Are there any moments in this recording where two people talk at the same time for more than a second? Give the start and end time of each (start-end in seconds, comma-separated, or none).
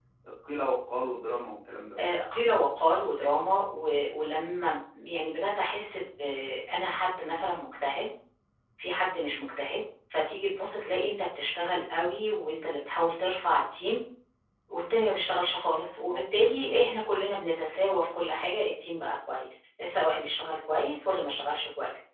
none